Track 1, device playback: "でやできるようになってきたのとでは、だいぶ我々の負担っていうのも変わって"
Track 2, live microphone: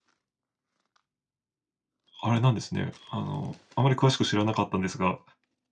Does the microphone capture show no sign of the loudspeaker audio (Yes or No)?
Yes